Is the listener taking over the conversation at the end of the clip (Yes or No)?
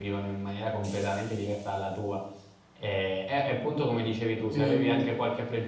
No